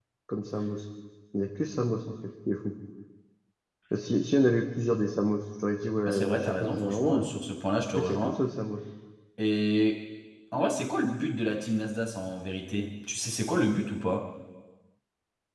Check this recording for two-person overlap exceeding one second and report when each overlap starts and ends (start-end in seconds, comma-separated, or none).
6.0-7.3